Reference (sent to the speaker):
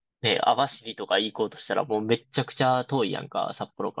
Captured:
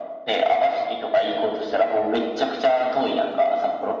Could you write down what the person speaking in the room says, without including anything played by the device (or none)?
none